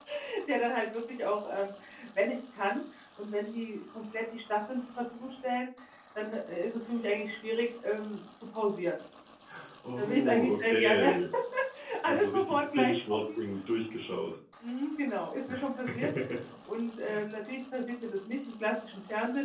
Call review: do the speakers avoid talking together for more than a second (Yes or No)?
No